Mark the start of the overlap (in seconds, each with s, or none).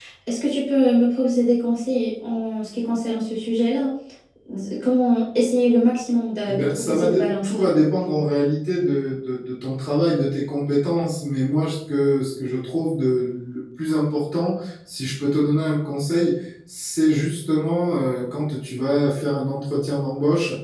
6.5 s